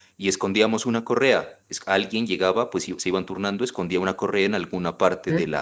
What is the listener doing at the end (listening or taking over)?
listening